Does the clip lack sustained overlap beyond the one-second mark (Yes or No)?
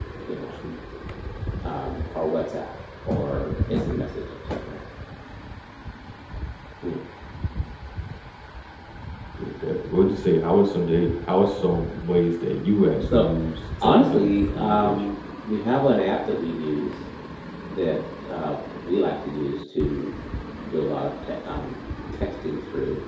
No